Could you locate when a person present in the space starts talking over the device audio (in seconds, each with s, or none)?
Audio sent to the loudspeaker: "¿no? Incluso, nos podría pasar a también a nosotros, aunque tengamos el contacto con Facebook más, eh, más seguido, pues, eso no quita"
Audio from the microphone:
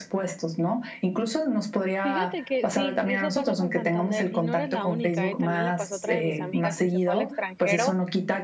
2.0 s